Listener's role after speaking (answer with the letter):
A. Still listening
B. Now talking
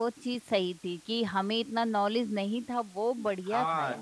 B